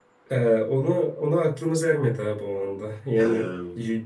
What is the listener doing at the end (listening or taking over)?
listening